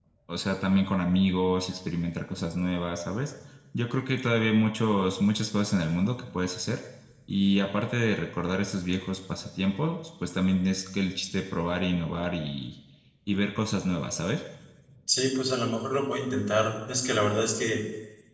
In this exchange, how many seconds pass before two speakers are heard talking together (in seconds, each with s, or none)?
none